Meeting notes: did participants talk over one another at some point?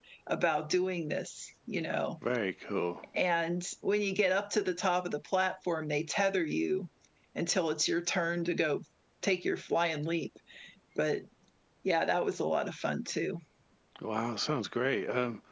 No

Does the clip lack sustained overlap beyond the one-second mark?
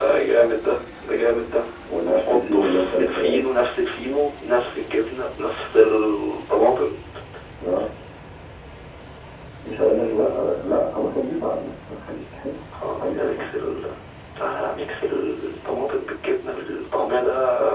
No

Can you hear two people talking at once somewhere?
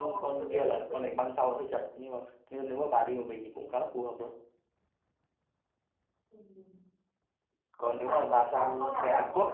Yes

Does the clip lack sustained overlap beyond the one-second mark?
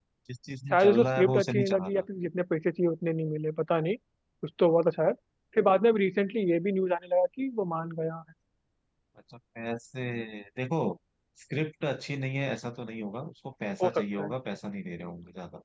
No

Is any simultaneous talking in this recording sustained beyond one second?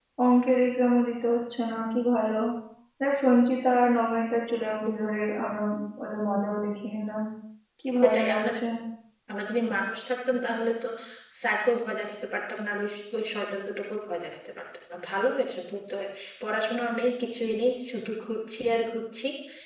No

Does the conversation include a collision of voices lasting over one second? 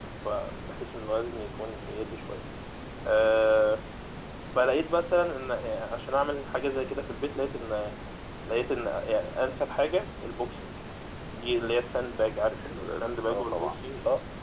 Yes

